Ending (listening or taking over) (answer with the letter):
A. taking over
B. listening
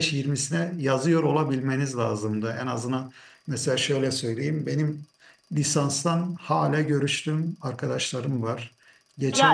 A